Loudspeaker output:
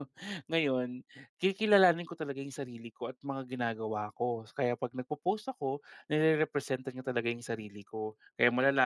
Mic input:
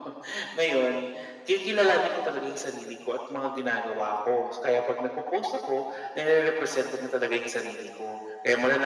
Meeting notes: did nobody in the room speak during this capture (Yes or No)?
Yes